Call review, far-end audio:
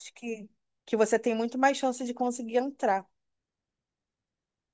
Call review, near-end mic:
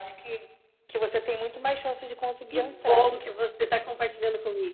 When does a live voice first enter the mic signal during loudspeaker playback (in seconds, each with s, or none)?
2.5 s